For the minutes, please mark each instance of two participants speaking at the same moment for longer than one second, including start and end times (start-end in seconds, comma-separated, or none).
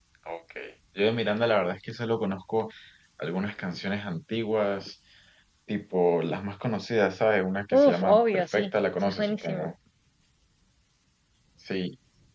7.7-9.7